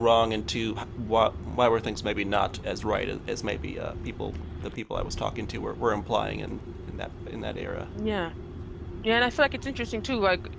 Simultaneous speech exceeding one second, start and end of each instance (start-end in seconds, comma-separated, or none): none